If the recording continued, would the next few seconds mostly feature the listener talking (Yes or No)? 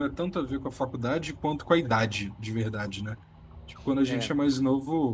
No